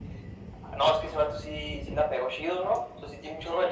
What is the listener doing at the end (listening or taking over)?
listening